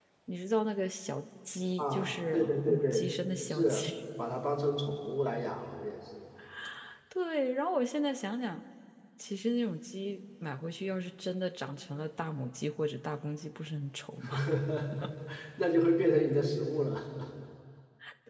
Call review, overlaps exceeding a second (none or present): present